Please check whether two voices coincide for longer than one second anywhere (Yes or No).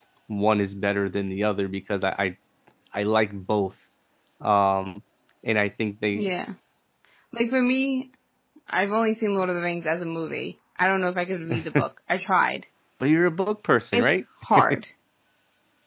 No